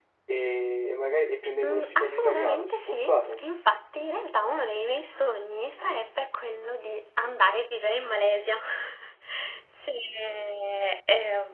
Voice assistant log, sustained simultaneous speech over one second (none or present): present